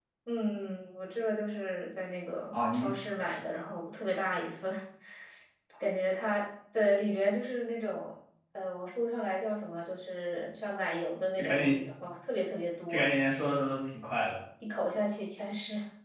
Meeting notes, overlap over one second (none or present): none